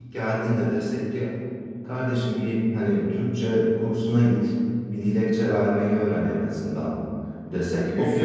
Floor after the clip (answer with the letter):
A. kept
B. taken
A